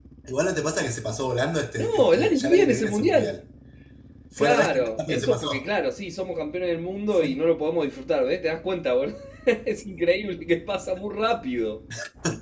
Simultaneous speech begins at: 1.8 s

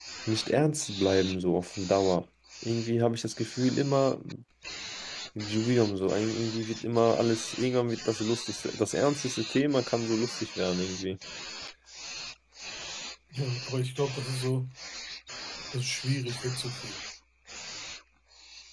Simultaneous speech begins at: none

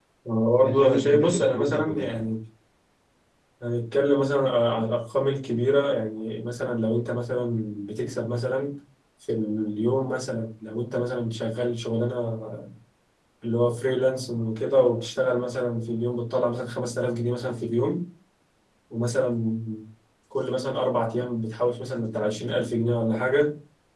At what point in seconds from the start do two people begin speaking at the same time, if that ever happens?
0.6 s

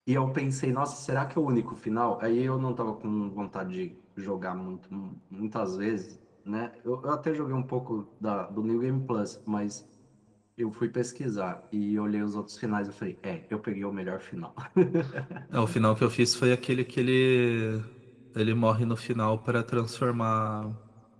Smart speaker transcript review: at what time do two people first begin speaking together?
none

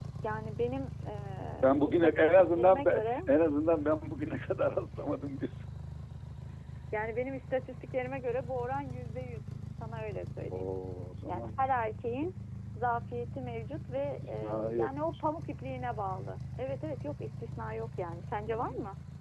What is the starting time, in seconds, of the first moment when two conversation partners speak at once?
1.6 s

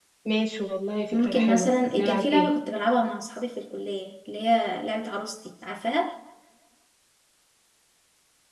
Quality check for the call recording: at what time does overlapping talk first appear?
1.1 s

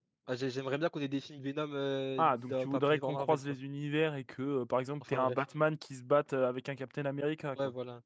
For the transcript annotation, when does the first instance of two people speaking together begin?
2.2 s

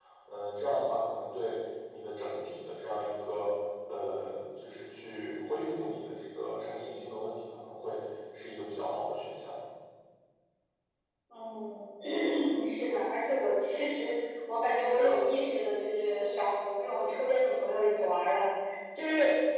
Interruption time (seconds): none

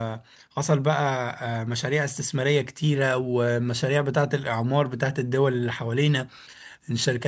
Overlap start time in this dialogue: none

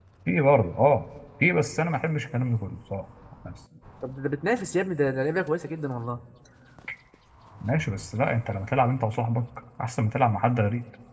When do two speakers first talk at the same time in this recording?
none

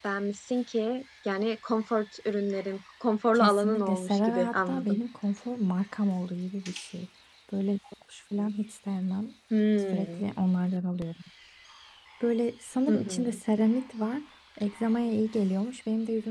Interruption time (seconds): 3.4 s

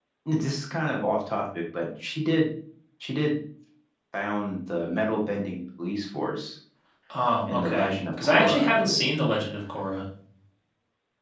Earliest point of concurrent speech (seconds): 7.5 s

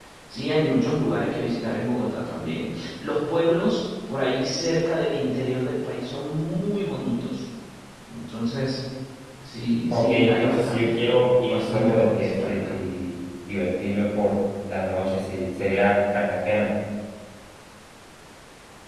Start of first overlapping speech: 9.9 s

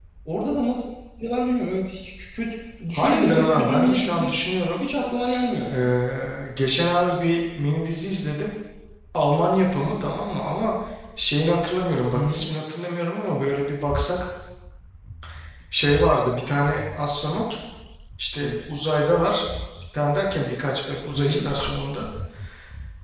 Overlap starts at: 3.0 s

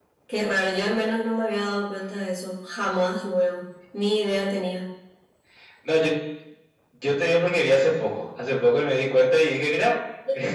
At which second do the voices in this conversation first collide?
none

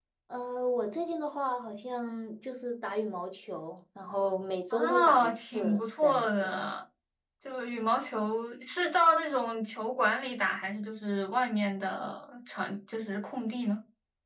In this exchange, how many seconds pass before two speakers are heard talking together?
4.7 s

